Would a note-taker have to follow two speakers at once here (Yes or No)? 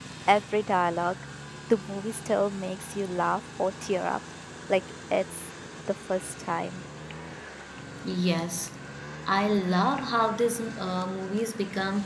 No